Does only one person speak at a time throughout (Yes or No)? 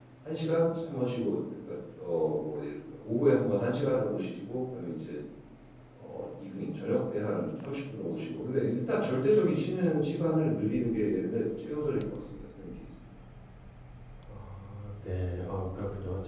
Yes